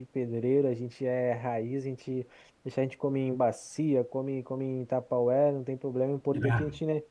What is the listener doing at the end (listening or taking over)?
listening